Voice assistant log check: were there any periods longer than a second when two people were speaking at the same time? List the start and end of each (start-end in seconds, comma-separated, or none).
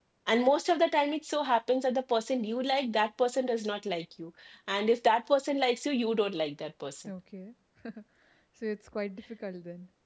none